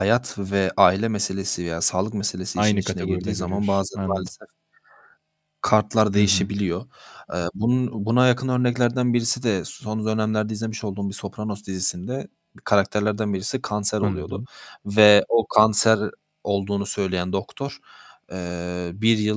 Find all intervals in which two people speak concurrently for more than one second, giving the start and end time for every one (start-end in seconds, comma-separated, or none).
2.6-4.3